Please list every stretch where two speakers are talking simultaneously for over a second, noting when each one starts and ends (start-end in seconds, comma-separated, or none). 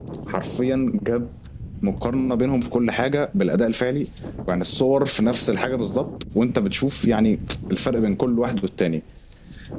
none